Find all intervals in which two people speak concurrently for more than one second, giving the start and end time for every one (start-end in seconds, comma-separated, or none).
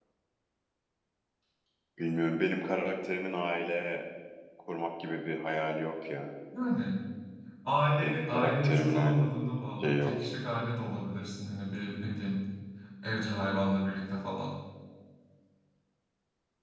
8.0-9.4